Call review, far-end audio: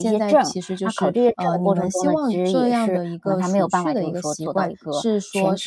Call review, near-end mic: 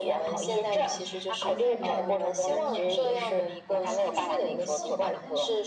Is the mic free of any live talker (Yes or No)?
No